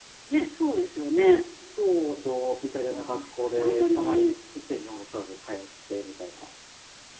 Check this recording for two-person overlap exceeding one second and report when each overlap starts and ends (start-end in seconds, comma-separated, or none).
2.8-4.3